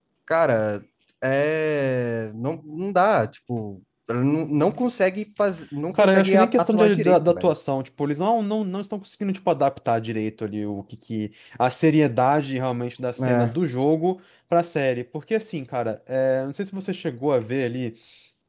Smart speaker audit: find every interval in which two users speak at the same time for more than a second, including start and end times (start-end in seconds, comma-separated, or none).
5.9-7.5